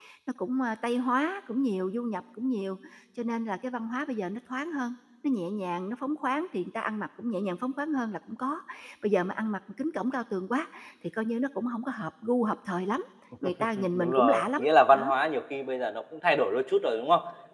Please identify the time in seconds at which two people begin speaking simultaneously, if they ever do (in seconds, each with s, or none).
13.8 s